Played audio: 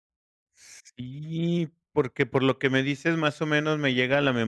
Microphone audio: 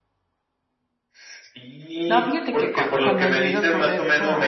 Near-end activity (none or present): present